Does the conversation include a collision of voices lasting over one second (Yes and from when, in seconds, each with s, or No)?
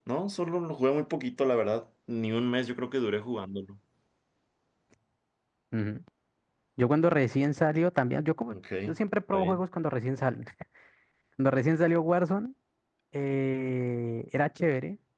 No